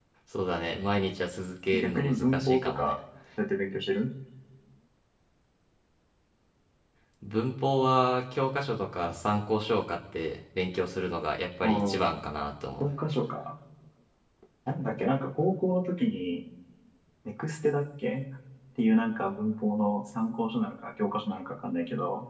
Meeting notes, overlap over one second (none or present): present